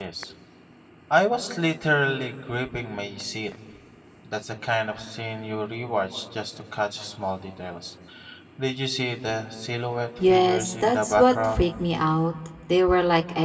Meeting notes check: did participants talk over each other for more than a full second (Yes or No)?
Yes